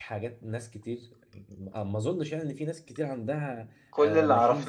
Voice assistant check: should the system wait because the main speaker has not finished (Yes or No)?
No